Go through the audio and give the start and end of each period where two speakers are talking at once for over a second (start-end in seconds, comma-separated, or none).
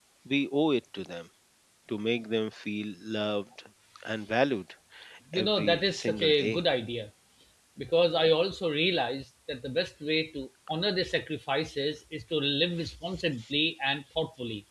5.3-6.6